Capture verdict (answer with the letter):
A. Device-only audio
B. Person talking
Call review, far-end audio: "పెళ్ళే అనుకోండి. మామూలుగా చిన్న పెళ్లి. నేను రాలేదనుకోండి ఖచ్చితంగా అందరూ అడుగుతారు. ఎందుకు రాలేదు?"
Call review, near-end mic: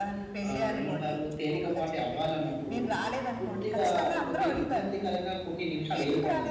B